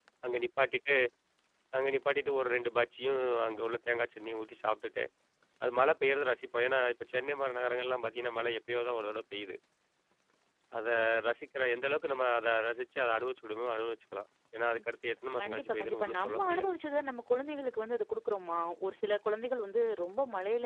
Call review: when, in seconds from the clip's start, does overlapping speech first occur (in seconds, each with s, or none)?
15.4 s